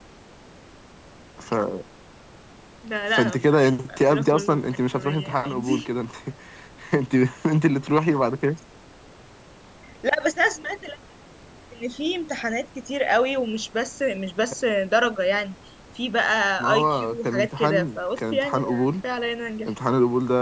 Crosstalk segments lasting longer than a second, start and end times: 4.0-5.9, 16.6-18.8

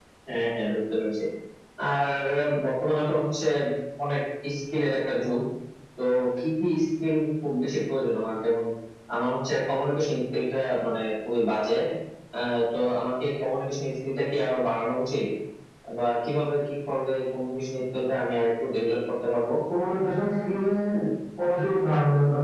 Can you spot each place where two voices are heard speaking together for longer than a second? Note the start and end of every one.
none

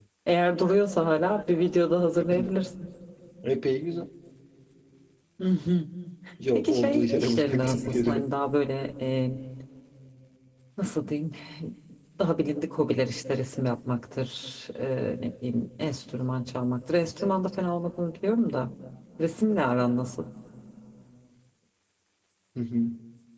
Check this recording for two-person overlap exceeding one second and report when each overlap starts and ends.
6.5-8.2

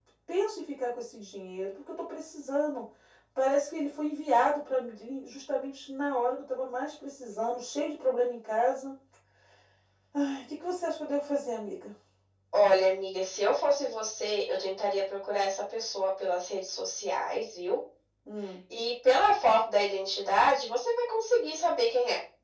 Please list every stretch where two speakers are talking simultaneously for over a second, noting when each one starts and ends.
none

